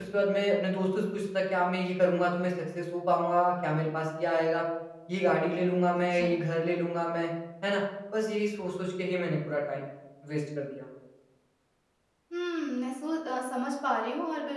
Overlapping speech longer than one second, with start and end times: none

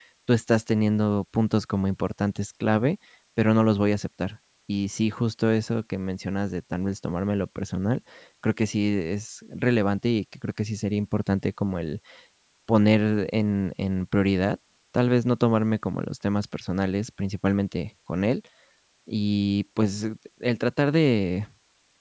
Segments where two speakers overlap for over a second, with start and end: none

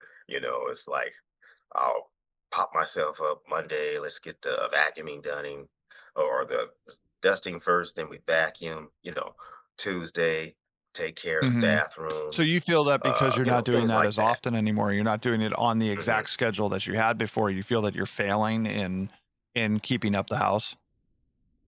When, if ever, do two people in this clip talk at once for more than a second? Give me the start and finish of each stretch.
13.0-14.4

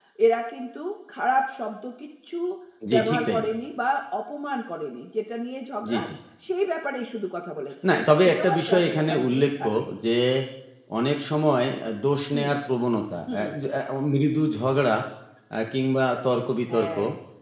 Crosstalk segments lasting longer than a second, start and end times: 8.3-9.6

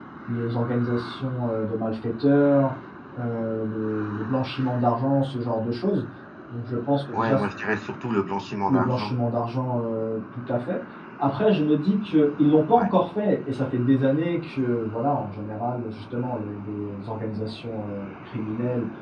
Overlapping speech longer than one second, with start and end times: none

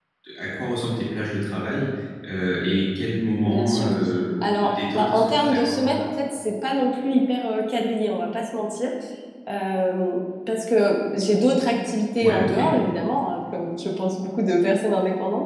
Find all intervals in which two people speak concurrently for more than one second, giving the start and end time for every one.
4.4-5.9

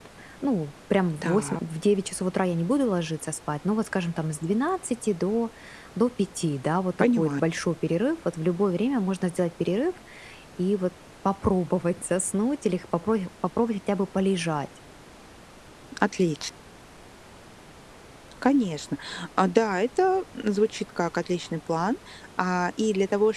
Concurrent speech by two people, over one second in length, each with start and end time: none

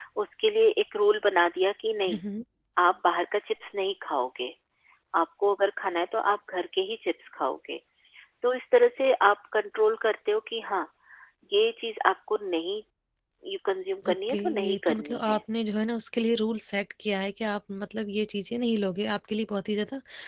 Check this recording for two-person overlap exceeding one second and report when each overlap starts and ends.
14.1-15.4

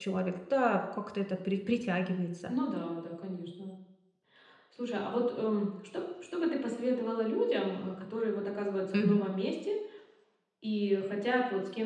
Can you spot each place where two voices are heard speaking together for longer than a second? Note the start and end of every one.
none

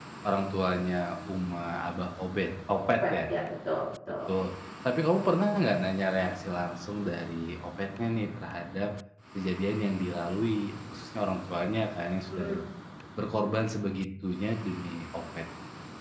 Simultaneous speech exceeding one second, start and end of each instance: none

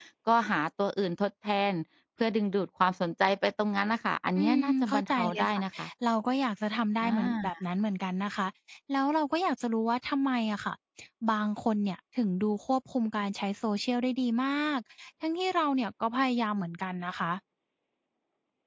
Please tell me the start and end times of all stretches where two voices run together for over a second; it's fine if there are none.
4.4-5.6

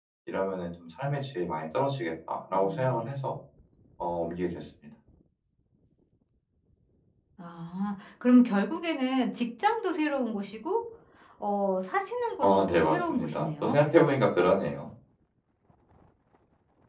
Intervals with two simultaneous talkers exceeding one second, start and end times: 12.4-13.8

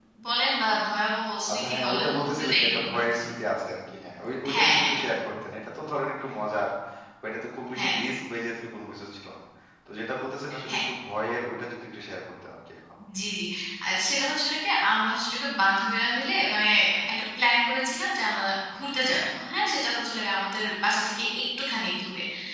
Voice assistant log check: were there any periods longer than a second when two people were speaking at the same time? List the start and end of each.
1.5-3.2

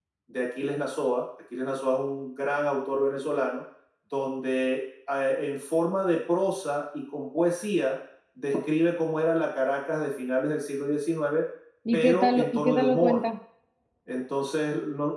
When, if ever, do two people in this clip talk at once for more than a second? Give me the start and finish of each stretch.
11.9-13.2

